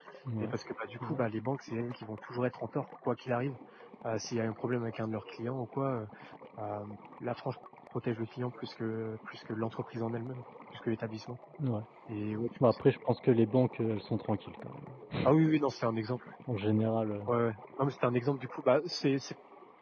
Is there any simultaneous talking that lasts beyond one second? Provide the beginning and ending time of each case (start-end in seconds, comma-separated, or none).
none